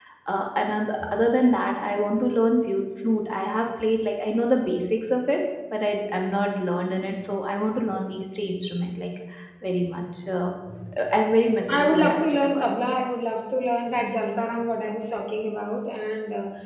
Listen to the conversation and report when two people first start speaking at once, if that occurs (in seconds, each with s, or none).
11.7 s